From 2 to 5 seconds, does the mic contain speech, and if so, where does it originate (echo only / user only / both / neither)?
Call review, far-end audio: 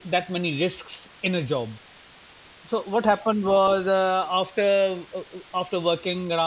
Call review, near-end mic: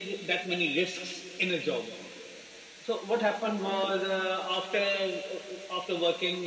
echo only